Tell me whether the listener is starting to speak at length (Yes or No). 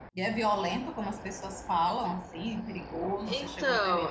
Yes